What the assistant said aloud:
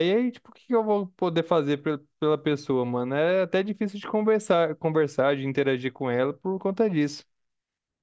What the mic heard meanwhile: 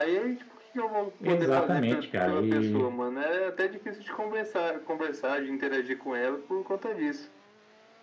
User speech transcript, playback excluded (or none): Exatamente, cara. E,